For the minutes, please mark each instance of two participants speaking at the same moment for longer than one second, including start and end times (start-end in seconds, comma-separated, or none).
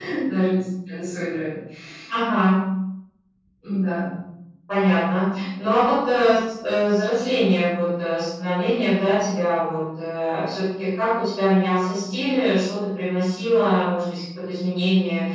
none